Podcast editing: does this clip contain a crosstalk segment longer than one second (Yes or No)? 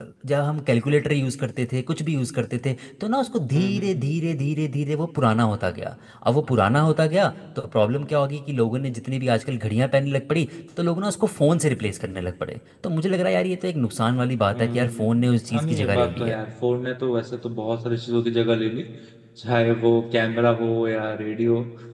Yes